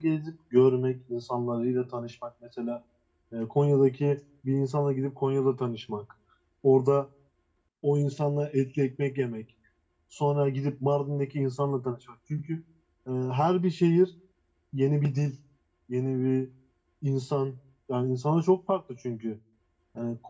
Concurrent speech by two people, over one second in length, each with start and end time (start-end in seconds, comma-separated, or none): none